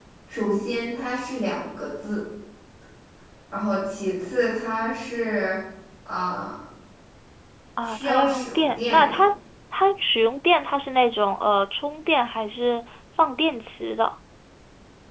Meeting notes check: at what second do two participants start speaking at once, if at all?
7.8 s

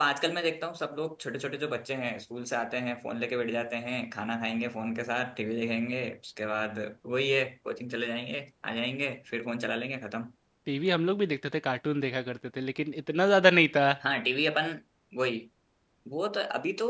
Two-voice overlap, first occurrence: none

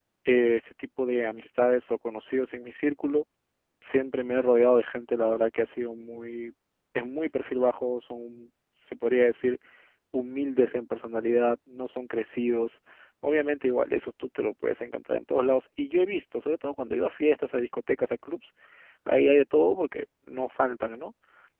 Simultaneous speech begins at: none

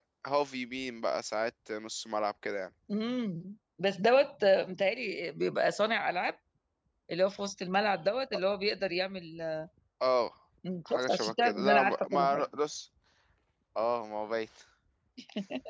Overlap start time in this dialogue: 10.9 s

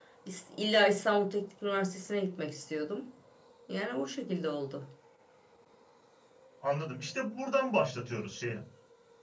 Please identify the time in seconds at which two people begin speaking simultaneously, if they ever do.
none

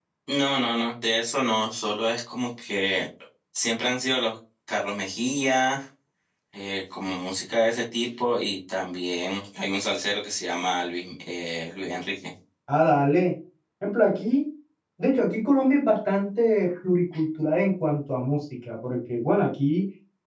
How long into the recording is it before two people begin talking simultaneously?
none

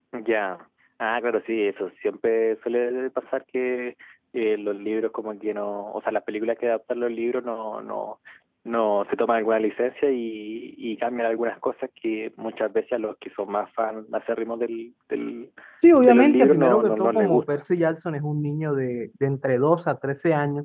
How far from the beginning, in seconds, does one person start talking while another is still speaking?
16.0 s

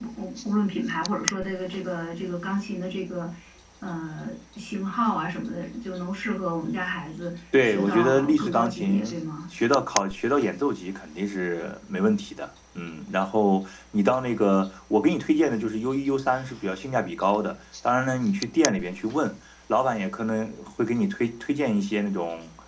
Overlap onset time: 7.5 s

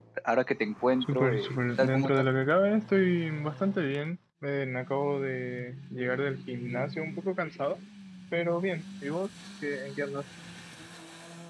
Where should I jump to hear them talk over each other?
1.0 s

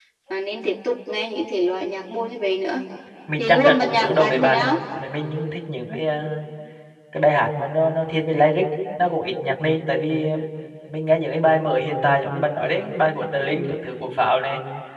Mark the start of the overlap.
3.4 s

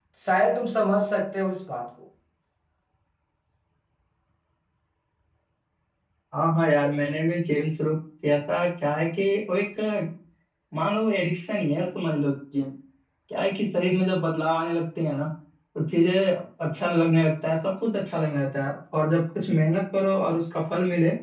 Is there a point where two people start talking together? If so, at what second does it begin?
none

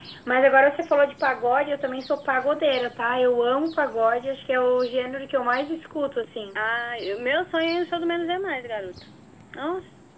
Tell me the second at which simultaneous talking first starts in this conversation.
none

